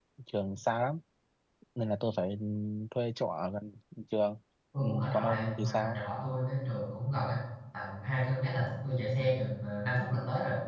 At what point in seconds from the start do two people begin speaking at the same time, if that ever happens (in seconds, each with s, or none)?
4.8 s